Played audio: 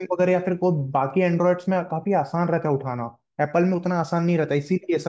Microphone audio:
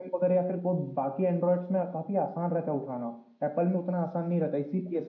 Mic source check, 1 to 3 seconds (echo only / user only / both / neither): echo only